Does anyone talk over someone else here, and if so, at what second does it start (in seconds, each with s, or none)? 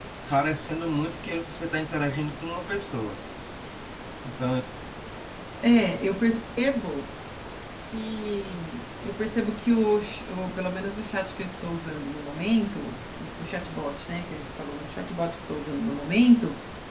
none